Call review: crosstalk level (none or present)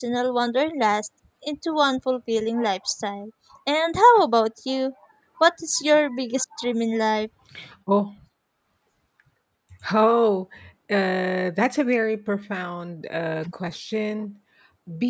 none